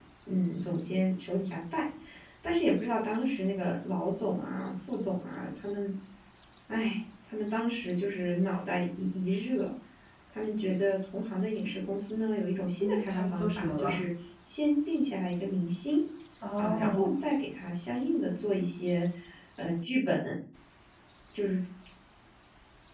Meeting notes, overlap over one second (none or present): present